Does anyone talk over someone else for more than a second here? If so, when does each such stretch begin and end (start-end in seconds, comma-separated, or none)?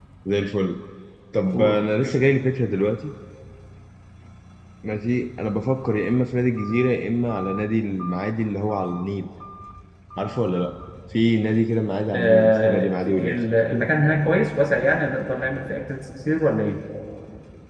12.1-13.4